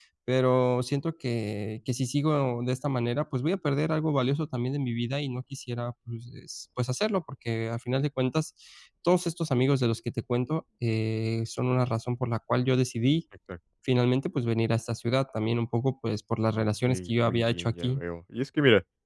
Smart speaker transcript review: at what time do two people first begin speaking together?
16.6 s

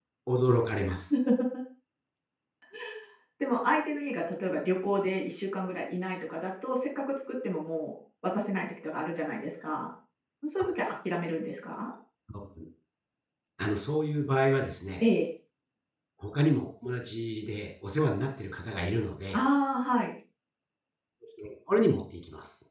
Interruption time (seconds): none

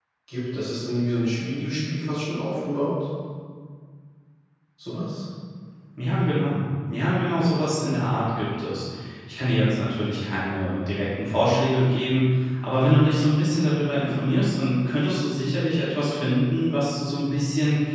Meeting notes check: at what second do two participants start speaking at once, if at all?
none

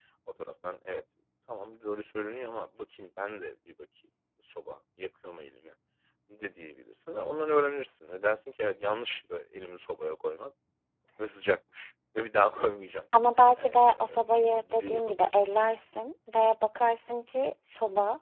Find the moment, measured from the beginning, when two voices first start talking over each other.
13.6 s

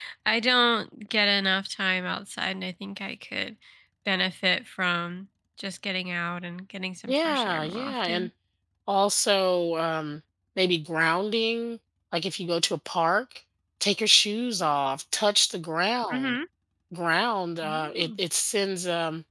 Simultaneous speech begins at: 7.1 s

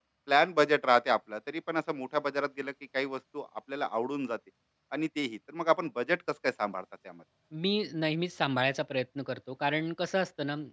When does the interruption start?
none

